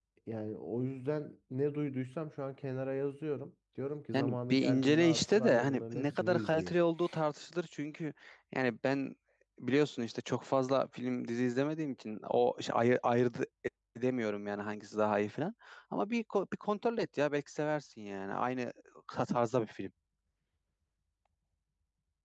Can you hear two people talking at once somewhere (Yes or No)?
Yes